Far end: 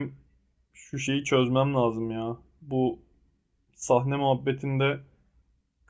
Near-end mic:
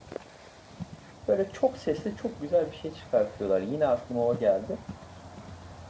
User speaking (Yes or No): Yes